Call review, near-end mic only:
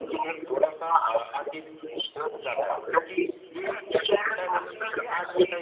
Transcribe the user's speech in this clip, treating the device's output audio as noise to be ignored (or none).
none